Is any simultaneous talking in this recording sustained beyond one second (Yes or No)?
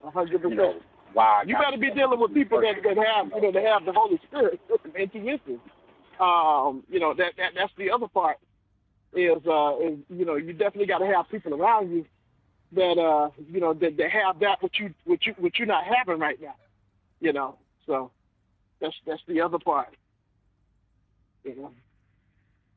Yes